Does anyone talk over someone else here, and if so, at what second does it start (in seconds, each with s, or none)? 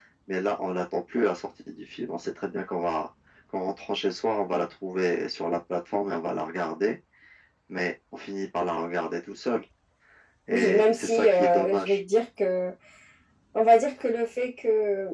10.5 s